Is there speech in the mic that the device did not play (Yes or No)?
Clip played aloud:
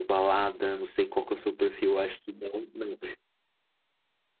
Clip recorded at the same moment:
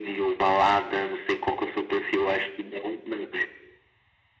No